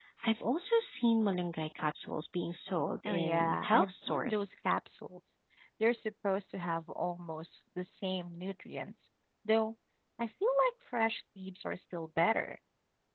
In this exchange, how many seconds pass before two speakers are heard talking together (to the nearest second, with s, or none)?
3 s